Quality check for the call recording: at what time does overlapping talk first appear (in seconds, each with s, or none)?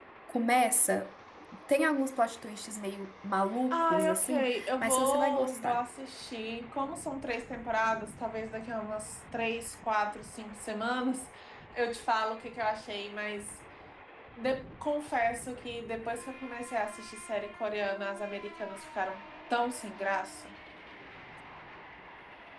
3.7 s